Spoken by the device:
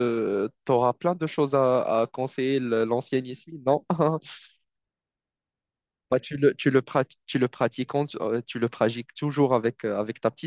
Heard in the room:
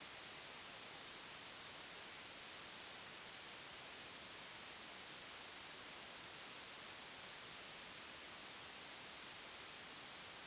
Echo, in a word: none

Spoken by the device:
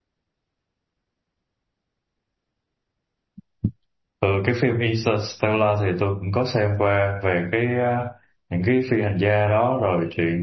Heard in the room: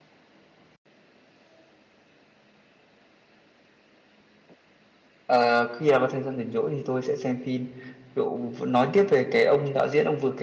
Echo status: none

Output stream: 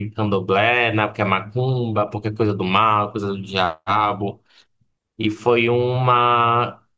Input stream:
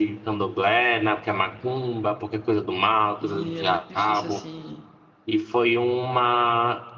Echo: present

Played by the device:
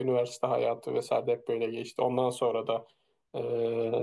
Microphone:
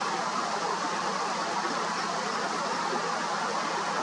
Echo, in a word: none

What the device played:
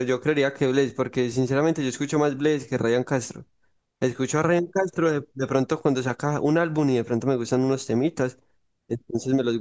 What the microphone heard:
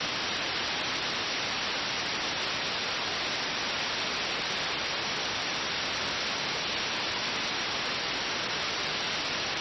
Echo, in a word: none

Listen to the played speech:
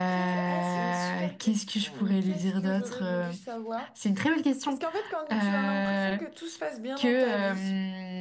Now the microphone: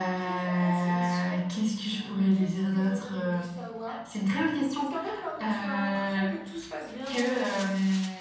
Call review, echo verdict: present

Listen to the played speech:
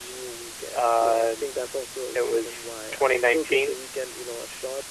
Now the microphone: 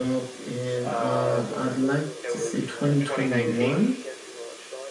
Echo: present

